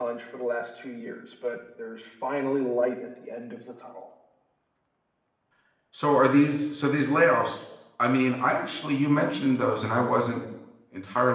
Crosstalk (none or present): none